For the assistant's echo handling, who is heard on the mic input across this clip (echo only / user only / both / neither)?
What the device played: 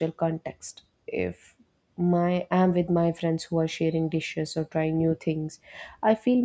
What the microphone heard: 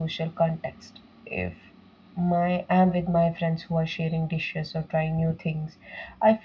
echo only